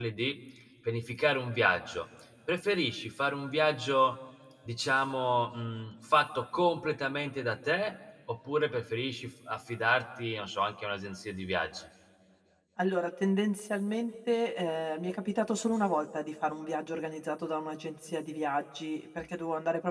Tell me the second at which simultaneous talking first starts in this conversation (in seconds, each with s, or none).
none